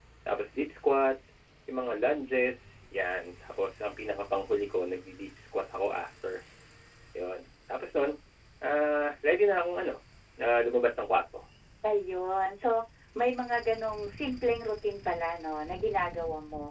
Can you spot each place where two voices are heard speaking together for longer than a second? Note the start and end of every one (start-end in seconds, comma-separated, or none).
none